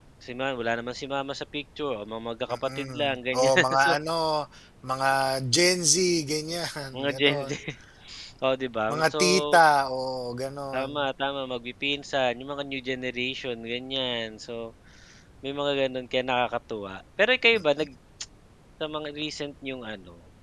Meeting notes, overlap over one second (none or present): present